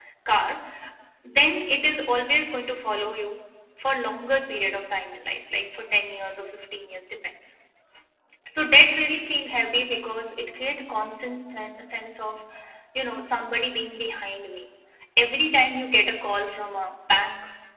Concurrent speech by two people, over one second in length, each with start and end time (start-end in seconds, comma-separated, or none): none